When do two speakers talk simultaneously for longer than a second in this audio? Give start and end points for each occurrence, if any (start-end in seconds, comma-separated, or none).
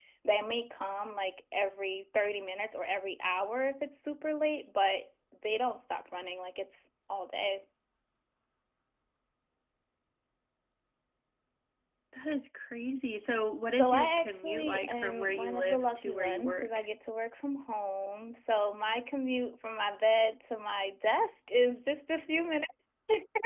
13.8-16.9